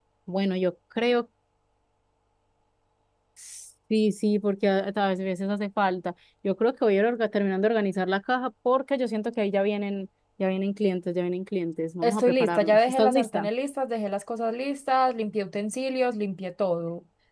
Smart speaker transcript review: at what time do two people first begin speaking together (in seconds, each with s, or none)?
12.0 s